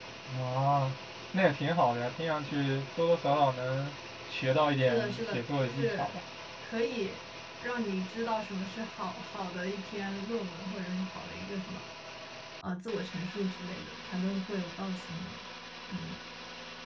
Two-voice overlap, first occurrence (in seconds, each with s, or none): 4.8 s